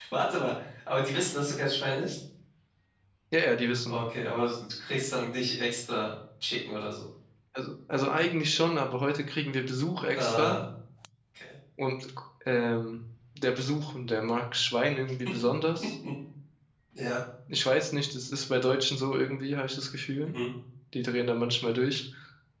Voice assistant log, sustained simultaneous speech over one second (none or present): none